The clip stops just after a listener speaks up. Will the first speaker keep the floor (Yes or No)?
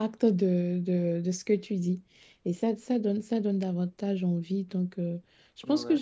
Yes